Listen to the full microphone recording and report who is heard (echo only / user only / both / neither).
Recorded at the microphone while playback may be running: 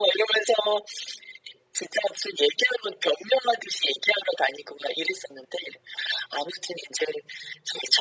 echo only